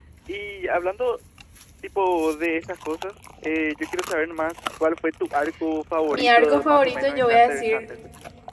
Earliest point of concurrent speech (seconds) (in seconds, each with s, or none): 6.1 s